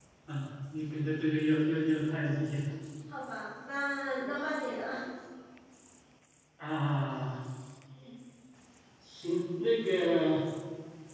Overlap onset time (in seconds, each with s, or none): none